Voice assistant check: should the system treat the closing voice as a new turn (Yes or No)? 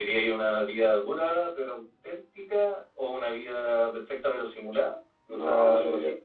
Yes